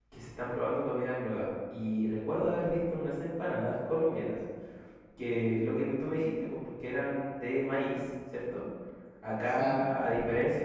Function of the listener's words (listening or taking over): listening